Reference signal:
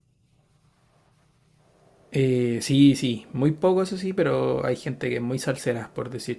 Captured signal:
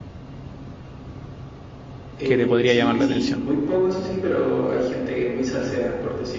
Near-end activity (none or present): present